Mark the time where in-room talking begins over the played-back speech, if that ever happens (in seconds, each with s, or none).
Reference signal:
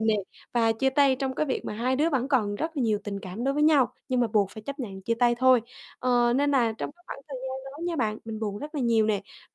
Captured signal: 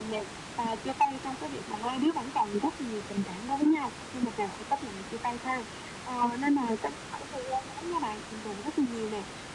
none